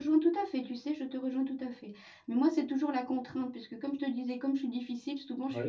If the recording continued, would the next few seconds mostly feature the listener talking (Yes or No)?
No